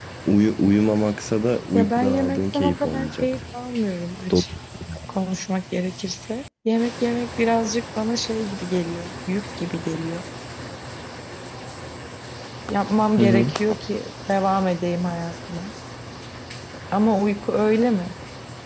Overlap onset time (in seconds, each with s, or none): 1.7 s